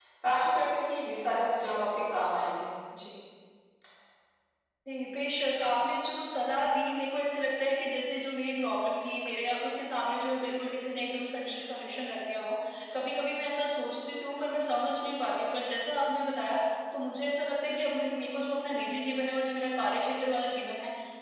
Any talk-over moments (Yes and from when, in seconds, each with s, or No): No